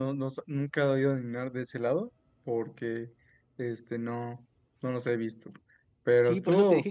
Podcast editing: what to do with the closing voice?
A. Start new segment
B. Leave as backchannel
A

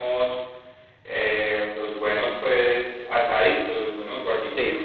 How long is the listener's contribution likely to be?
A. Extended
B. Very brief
B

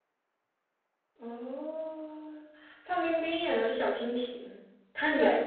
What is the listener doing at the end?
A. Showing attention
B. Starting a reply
A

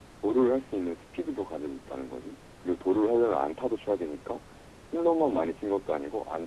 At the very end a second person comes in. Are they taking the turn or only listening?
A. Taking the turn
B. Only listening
B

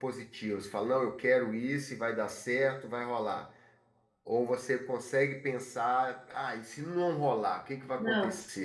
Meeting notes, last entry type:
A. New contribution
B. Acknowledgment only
A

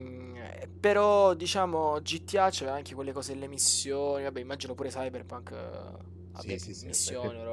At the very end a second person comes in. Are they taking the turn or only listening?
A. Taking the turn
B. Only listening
A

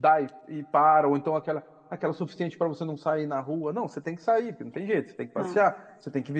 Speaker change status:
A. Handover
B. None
B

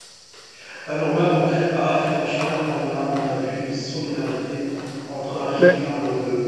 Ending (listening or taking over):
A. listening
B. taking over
A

